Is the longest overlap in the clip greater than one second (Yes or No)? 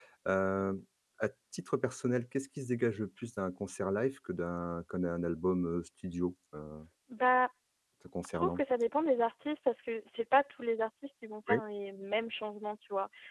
No